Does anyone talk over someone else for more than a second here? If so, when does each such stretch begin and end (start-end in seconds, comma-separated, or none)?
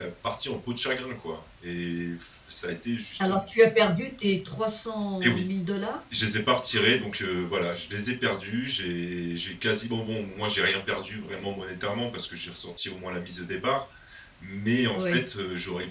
none